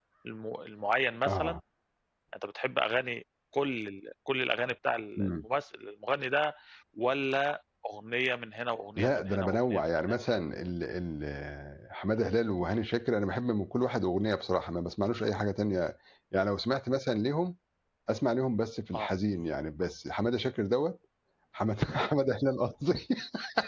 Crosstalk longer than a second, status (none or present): present